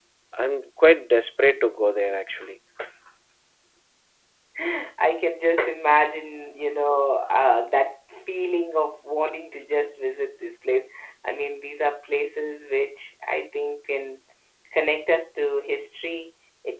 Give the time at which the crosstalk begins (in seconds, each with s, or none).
none